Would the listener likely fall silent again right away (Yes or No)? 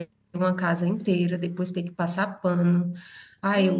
No